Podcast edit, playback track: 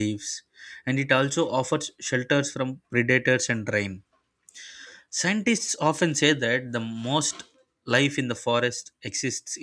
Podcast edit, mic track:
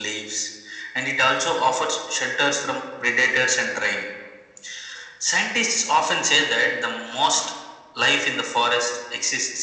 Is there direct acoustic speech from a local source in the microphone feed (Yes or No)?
No